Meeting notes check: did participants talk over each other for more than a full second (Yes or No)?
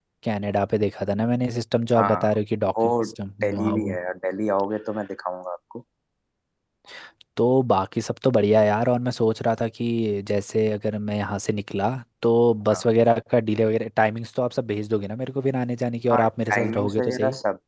Yes